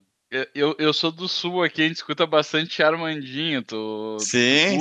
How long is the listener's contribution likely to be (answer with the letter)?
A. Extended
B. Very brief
A